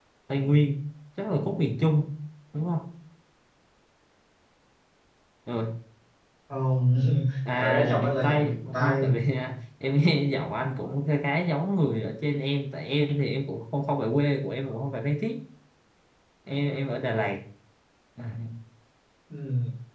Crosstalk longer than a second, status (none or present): present